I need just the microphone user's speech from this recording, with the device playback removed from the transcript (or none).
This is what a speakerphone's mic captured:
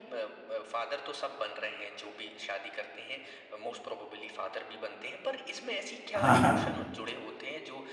हाँ, हाँ, हम